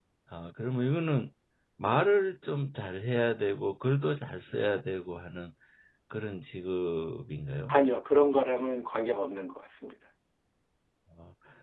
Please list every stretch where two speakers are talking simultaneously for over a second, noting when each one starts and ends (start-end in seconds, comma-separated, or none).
none